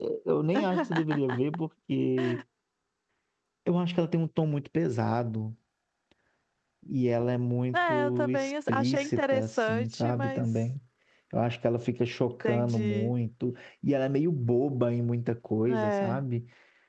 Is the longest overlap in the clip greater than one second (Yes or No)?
Yes